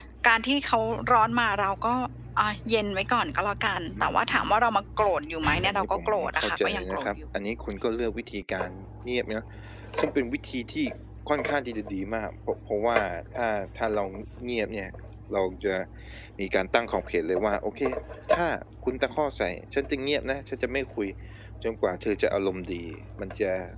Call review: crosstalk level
present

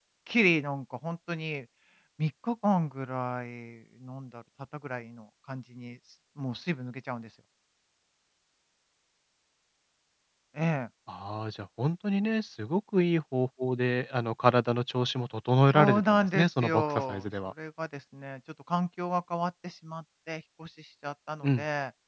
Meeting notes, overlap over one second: present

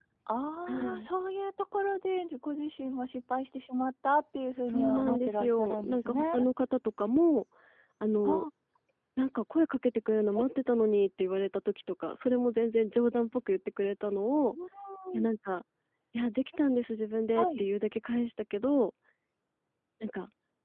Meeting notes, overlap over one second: present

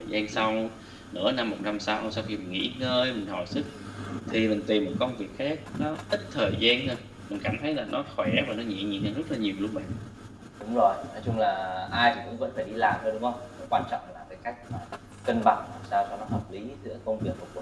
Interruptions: none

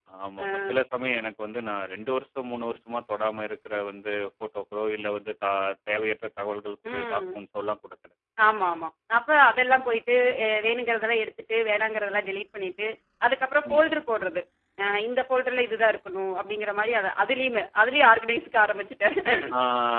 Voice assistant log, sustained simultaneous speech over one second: none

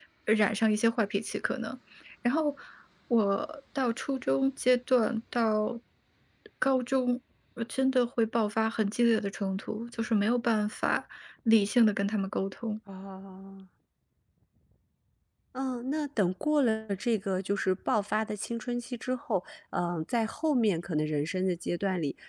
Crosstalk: none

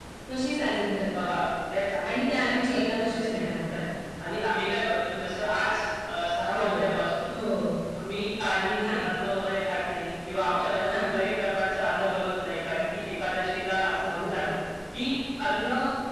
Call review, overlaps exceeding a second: present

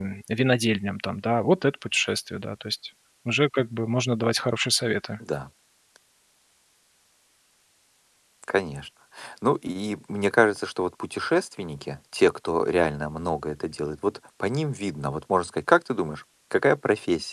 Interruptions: none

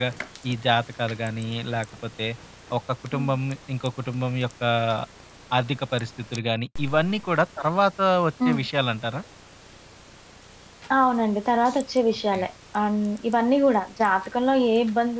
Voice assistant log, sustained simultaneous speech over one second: none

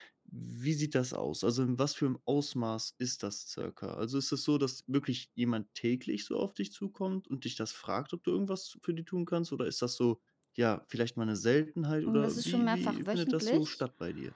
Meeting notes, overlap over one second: present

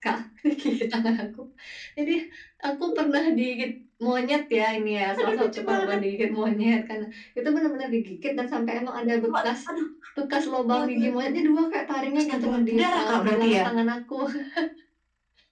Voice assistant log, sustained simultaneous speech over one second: present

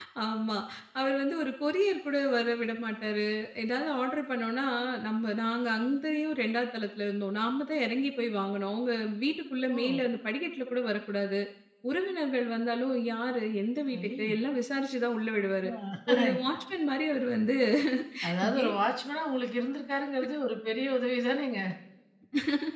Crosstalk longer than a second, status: none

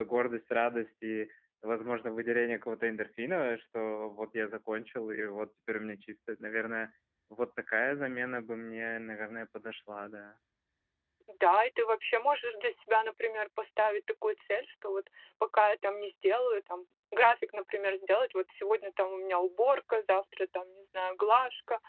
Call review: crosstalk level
none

